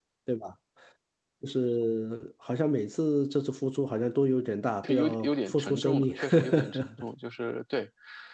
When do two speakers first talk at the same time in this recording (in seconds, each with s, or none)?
4.8 s